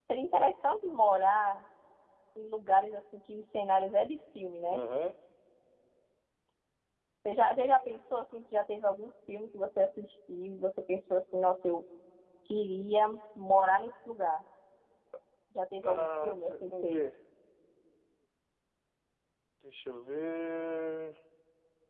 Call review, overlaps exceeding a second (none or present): present